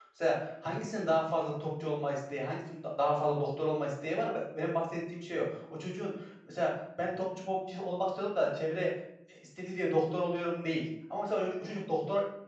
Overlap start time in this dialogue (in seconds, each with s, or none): none